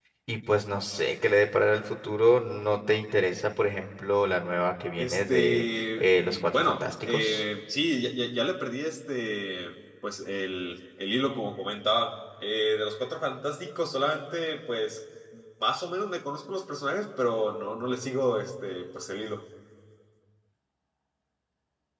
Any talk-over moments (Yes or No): Yes